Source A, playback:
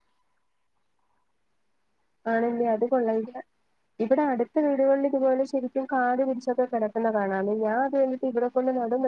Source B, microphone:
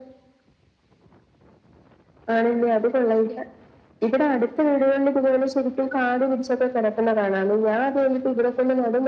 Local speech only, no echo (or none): none